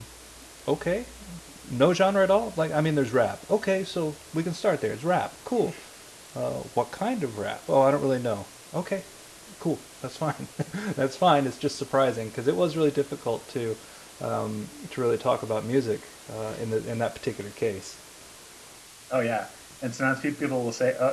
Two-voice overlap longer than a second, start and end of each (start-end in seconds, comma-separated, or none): none